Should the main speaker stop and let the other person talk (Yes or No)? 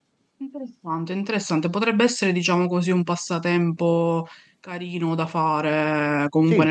No